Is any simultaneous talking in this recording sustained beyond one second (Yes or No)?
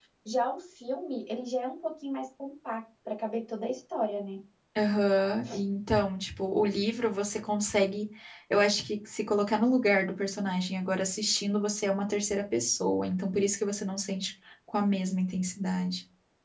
No